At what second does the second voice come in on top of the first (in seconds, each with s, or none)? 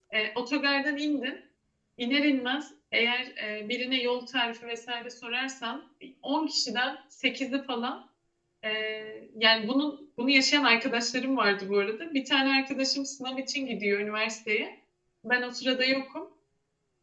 none